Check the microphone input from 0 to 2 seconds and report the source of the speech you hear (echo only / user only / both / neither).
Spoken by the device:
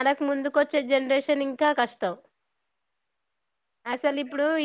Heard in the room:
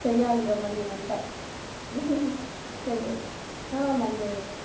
user only